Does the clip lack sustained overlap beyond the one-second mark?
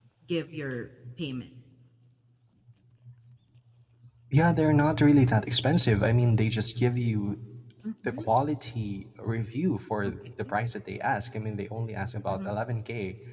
Yes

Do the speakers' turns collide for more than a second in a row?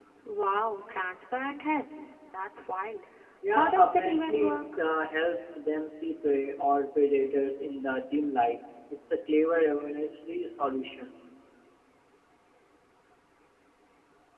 Yes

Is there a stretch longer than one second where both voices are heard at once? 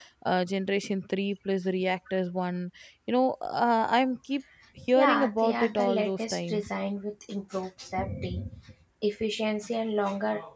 Yes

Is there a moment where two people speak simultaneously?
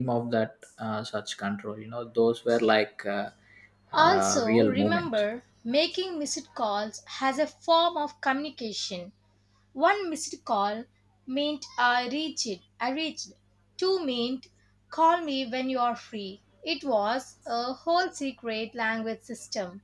Yes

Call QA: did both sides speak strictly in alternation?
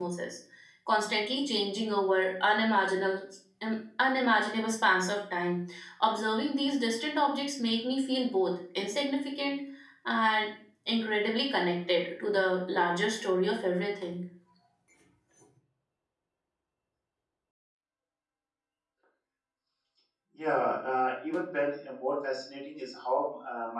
Yes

